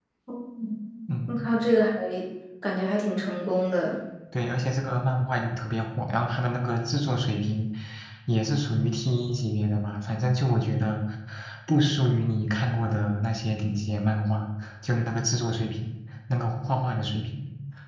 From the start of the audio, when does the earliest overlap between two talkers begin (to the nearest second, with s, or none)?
none